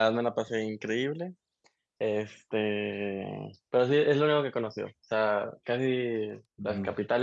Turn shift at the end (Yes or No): No